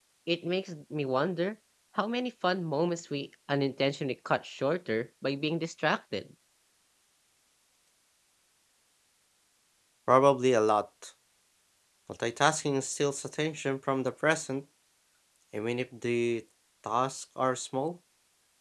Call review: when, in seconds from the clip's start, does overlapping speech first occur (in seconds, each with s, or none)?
none